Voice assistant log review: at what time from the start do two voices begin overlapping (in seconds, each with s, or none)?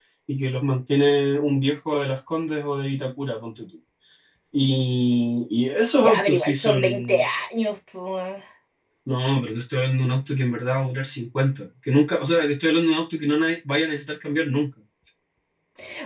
6.0 s